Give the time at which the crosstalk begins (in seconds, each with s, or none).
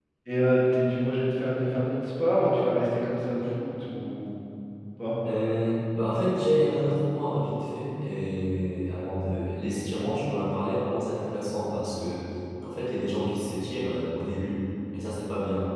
none